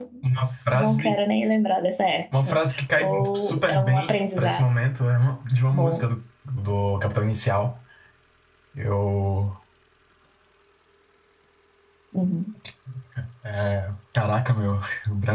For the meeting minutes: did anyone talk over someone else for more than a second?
Yes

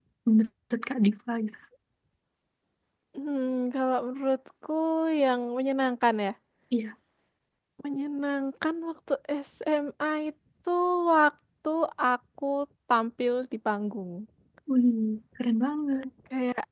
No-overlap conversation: Yes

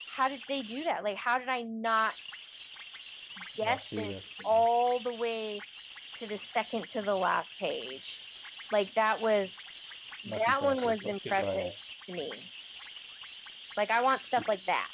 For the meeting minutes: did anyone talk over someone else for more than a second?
Yes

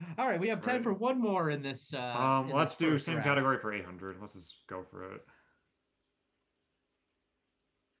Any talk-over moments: Yes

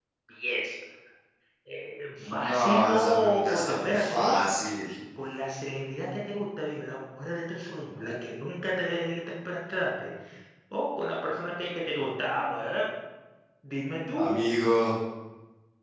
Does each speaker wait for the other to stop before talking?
No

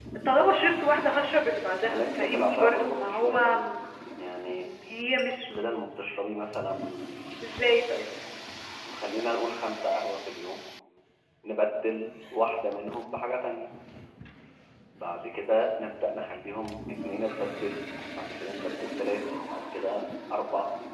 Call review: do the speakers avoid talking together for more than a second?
No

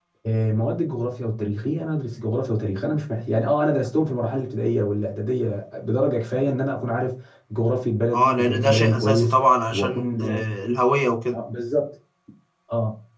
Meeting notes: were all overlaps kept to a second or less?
No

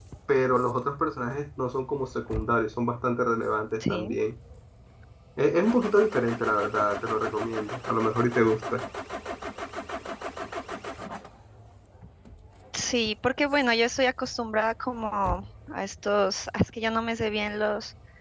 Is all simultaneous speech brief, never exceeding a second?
Yes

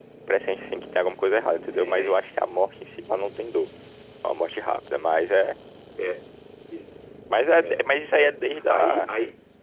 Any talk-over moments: Yes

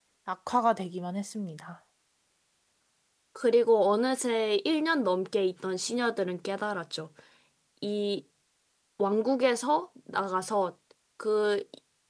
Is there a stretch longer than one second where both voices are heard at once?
No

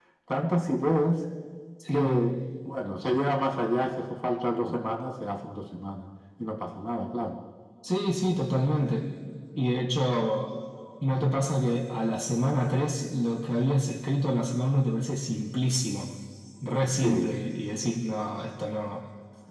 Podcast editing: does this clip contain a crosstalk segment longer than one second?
No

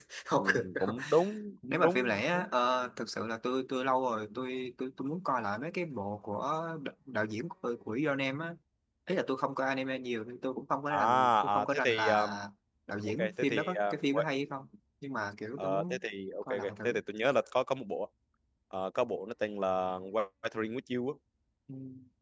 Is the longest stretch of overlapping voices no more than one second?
No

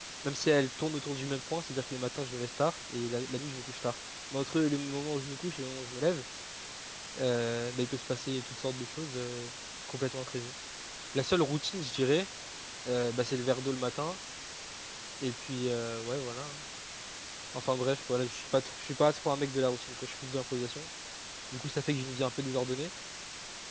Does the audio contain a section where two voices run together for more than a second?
No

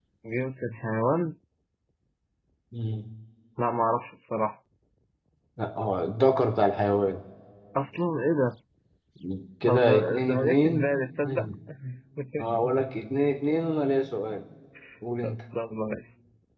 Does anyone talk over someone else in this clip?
Yes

